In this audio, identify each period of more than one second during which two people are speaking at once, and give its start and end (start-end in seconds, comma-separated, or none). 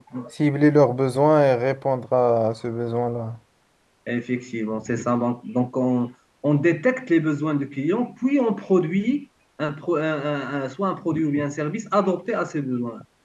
none